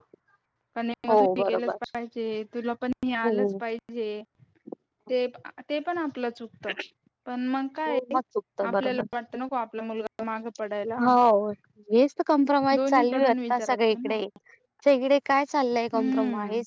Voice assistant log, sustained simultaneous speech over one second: present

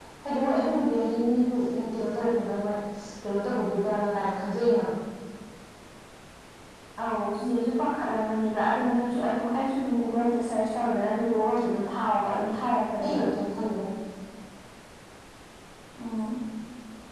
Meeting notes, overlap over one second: none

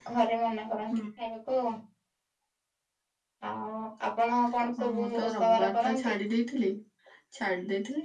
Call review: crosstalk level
present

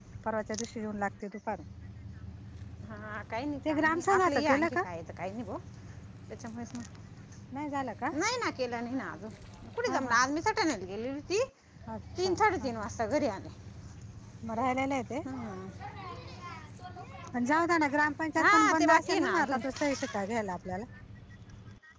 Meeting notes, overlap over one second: present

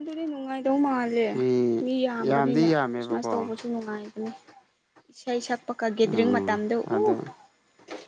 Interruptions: present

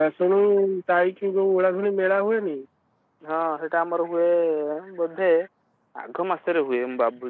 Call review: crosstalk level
none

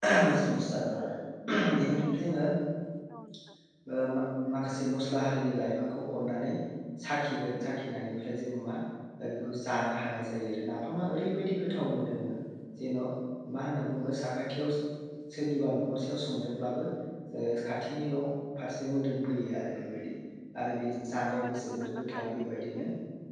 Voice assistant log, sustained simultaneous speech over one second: present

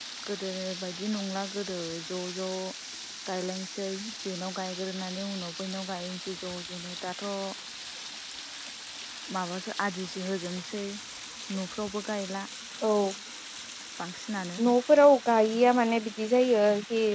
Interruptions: none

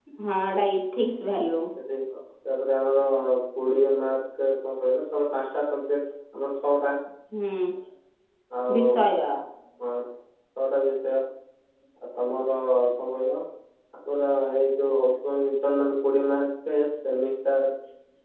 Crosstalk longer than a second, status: none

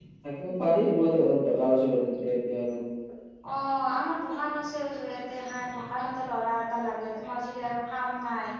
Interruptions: none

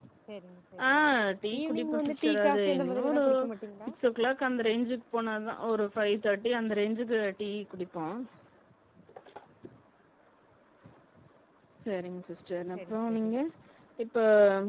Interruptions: present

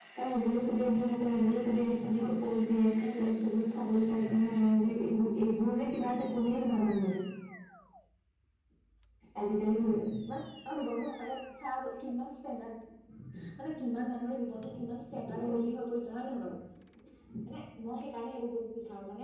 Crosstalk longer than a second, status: none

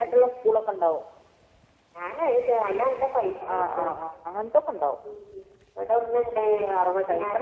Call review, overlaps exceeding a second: none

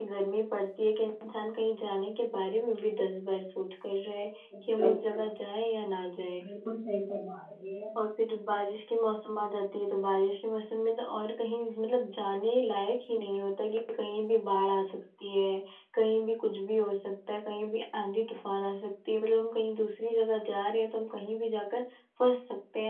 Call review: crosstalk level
none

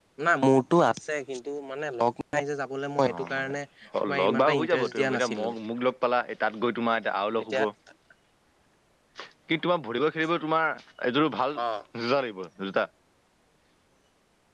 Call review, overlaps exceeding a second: present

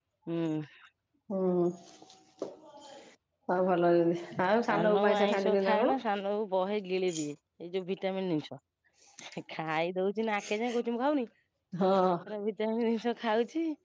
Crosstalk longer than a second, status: present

